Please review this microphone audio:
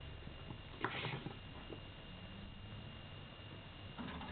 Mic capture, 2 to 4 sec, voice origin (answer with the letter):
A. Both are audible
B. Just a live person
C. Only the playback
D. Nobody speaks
D